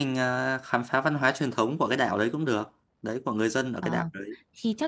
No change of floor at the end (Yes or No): No